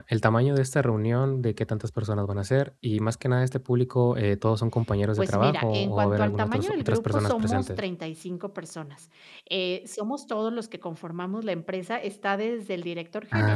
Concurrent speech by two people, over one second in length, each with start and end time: 5.2-7.8

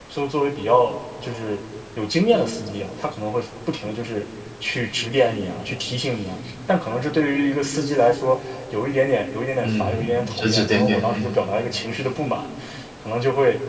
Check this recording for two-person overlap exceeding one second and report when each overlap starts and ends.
9.6-11.3

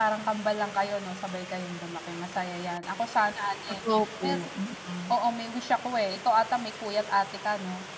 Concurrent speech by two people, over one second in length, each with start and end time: none

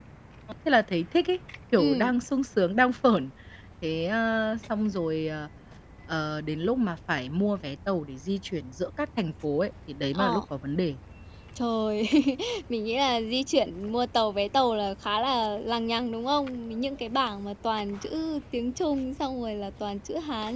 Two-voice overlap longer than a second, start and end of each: none

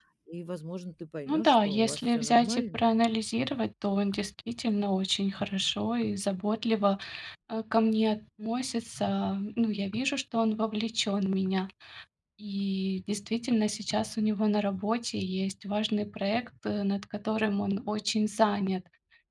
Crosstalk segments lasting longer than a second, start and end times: 1.3-2.9

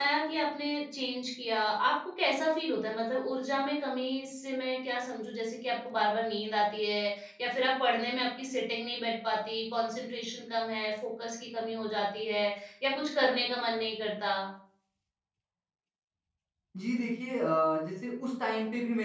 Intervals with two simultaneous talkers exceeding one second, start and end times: none

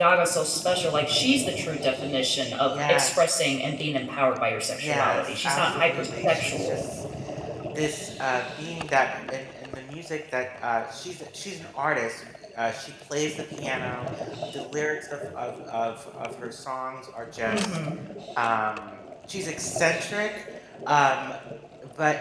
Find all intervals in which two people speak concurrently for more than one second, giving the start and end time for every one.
4.8-6.9

